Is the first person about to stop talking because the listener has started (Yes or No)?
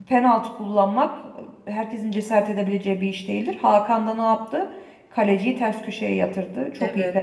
Yes